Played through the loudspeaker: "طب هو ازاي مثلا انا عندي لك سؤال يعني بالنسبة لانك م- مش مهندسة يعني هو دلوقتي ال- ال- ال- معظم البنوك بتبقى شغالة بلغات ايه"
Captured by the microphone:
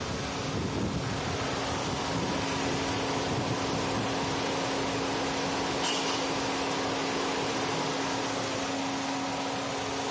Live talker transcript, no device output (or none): none